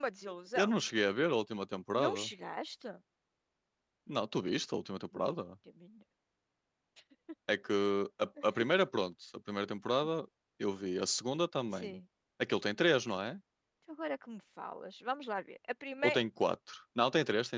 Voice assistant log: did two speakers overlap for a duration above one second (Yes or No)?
No